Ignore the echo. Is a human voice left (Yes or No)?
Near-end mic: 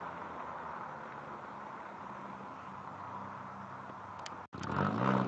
No